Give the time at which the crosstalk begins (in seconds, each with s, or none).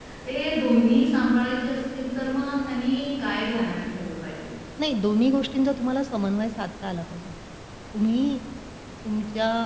none